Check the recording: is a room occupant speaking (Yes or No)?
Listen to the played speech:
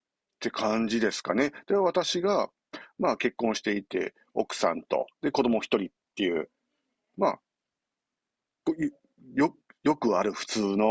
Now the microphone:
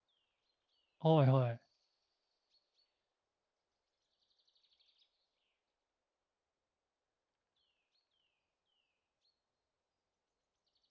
Yes